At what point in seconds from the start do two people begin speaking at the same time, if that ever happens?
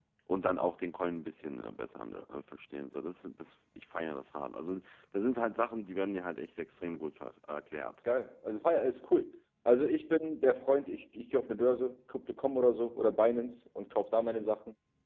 none

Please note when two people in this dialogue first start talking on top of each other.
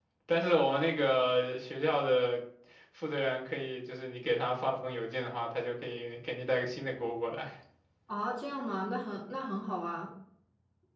none

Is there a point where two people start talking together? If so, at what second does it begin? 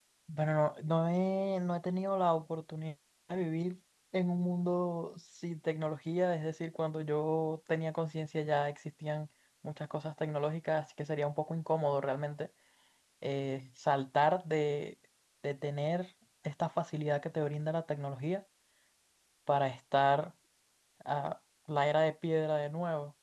none

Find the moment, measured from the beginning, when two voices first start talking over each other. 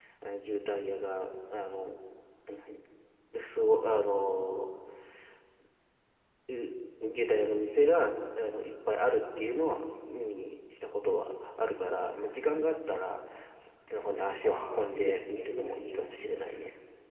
14.4 s

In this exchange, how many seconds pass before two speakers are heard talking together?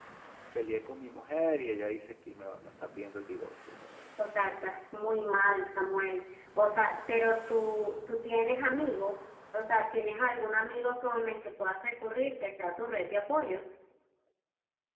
none

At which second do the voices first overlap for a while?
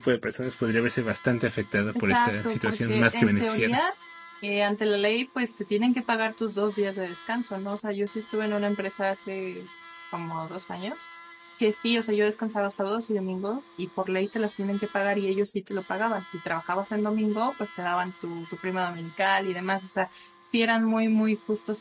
1.9 s

